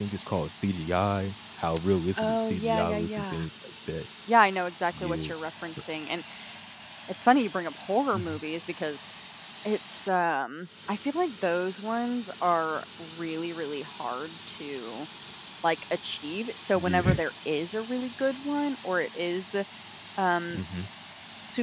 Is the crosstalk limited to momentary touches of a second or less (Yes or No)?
No